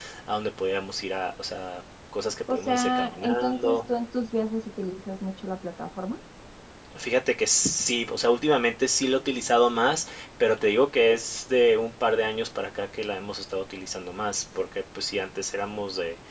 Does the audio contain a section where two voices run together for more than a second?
Yes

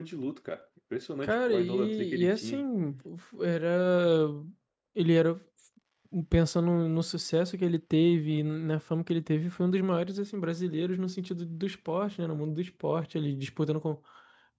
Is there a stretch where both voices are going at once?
Yes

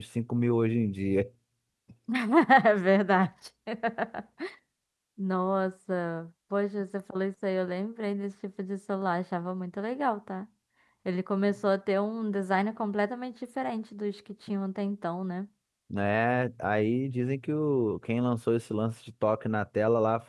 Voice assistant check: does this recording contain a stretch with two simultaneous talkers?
No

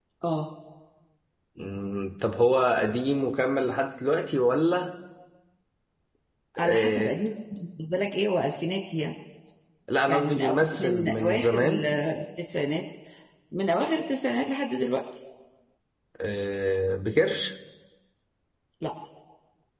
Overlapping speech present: Yes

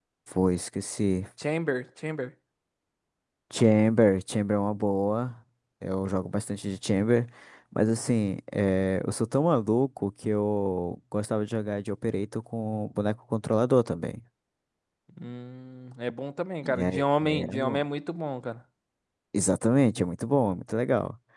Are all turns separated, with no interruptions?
No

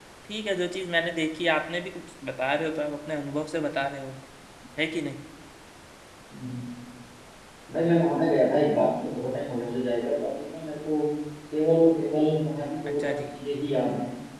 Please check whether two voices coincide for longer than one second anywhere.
No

